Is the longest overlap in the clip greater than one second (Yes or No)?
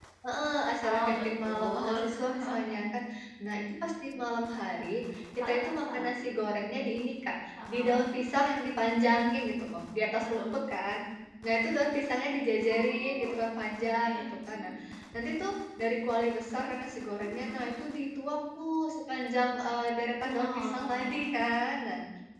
Yes